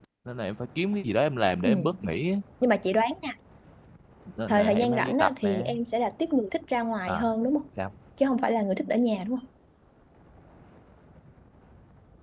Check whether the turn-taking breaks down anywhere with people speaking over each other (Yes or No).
Yes